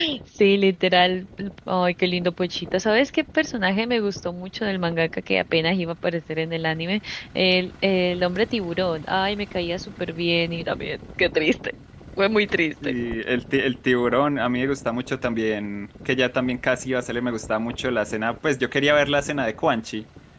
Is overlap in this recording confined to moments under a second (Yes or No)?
Yes